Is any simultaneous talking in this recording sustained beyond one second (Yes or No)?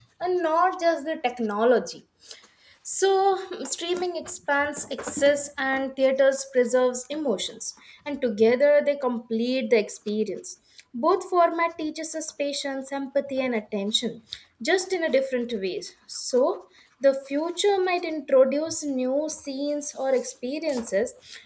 No